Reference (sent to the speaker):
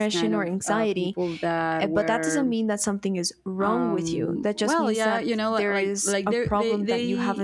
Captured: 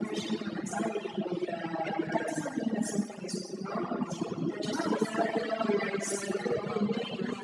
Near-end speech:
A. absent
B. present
B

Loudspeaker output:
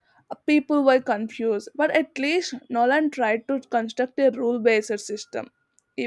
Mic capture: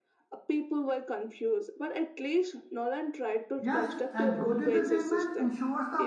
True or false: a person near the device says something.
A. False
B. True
B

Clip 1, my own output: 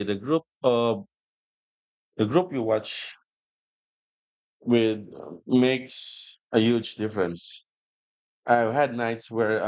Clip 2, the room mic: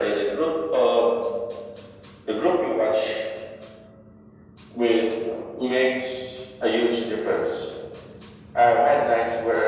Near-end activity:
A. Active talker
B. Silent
B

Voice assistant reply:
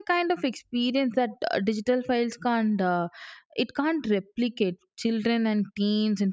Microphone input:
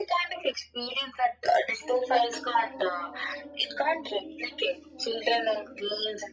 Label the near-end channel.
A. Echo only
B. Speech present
B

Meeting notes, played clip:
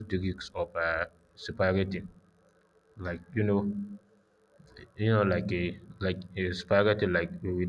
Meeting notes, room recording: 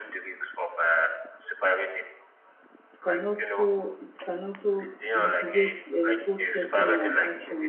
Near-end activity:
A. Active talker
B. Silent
A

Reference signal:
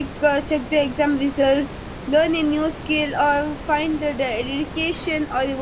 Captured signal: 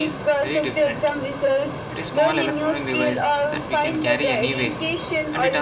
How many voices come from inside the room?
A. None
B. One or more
B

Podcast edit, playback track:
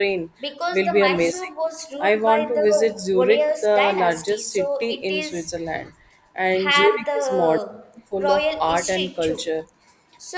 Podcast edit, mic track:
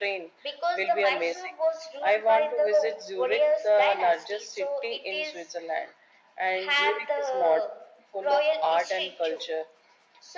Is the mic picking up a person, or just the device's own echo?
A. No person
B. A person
A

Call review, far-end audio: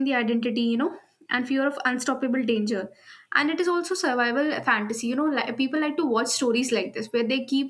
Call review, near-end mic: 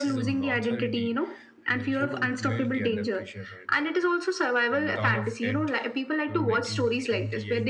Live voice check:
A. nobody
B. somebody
B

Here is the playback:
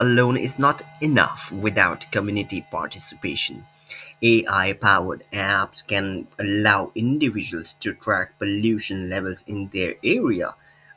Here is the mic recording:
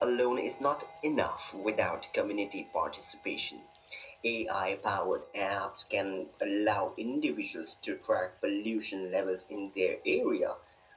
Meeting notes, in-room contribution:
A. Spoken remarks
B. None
B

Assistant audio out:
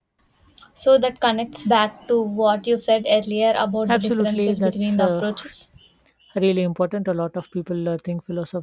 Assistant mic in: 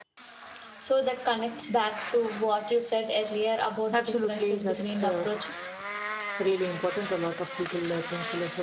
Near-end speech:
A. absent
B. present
A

